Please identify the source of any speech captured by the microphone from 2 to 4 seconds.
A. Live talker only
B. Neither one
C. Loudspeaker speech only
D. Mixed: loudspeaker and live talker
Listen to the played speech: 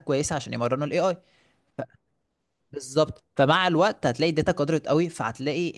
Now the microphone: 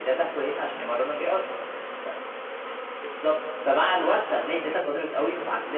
C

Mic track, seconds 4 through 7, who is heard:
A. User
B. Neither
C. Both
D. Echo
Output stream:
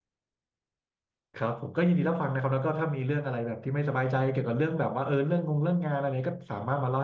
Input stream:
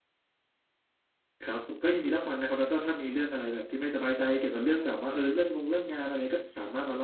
D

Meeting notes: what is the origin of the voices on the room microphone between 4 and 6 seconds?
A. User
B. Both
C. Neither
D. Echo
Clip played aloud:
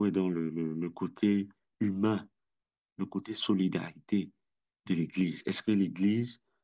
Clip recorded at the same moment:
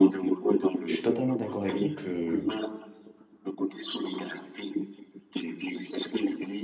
D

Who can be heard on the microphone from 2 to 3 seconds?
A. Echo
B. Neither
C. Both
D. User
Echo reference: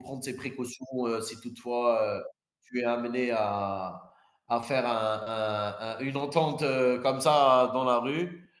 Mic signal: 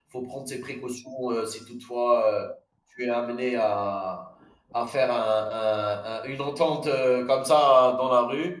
A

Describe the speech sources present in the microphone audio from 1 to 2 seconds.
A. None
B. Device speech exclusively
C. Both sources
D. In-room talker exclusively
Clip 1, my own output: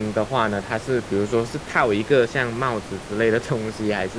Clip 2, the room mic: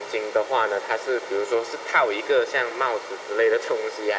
B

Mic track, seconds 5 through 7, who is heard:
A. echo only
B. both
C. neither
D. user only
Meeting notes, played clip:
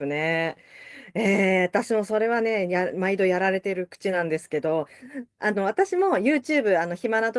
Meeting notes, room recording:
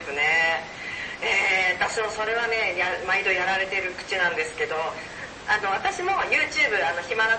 A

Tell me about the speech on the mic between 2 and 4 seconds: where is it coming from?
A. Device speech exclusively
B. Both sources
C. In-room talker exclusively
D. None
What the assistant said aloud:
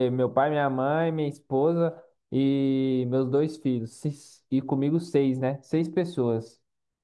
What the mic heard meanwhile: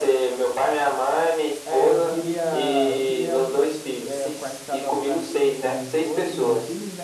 B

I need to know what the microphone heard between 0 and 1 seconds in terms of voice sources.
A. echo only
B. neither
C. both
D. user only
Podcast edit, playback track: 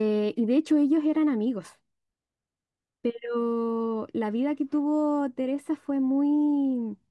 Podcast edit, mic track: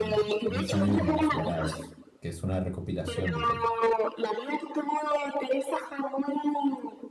C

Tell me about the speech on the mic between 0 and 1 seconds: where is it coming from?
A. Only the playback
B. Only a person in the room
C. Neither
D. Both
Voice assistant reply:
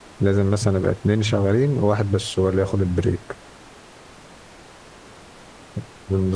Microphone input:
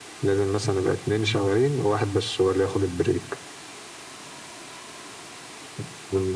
A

